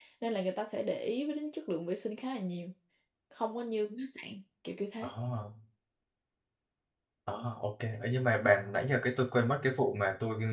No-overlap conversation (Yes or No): Yes